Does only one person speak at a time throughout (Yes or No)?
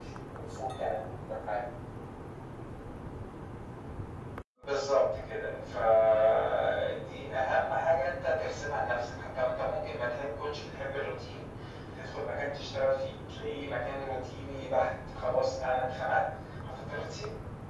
Yes